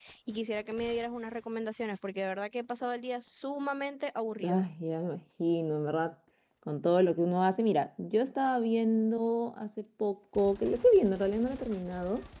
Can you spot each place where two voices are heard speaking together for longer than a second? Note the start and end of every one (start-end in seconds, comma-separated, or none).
none